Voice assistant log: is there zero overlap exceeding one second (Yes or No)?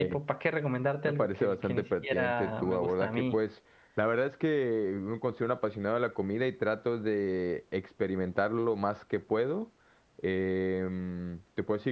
No